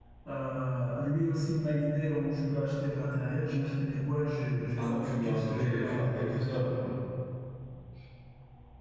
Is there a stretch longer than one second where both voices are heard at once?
Yes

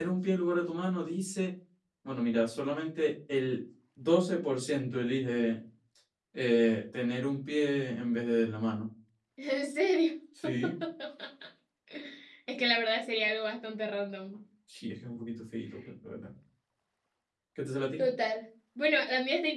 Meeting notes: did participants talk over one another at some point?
No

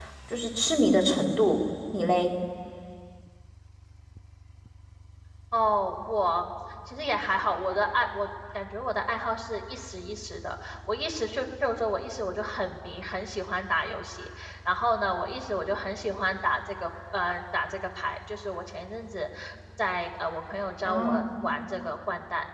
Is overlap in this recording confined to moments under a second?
Yes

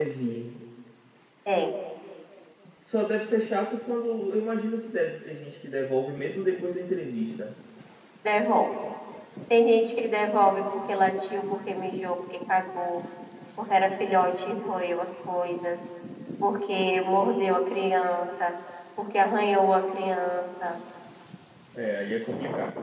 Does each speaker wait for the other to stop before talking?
Yes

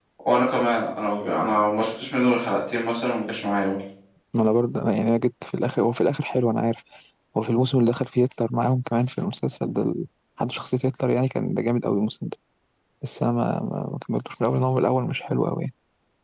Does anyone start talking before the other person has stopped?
No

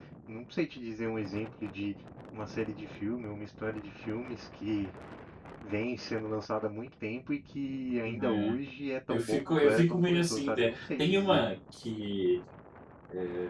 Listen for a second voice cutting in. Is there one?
Yes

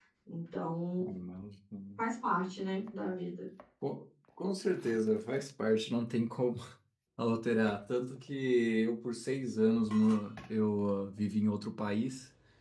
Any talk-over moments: No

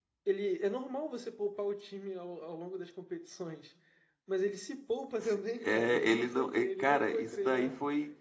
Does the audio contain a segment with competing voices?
Yes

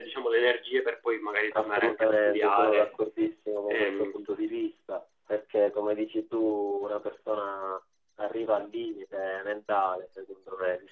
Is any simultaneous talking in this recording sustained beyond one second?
Yes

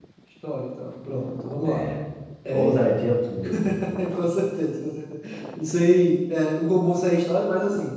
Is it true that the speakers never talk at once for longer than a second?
Yes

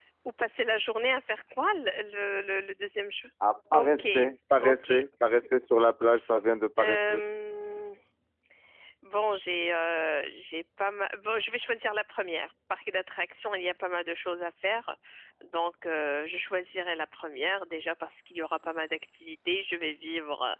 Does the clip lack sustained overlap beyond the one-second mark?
Yes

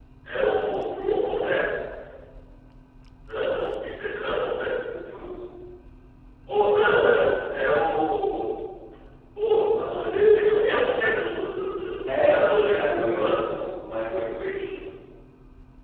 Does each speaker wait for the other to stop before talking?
No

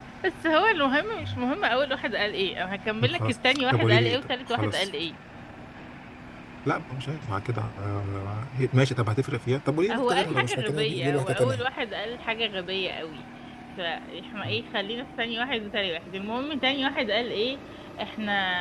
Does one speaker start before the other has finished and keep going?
Yes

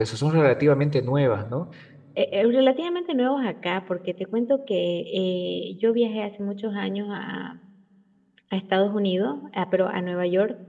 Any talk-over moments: No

